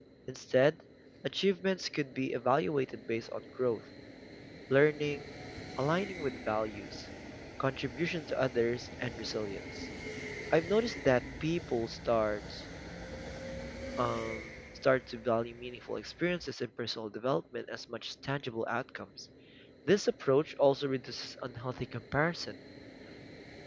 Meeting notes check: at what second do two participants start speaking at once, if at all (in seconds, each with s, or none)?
none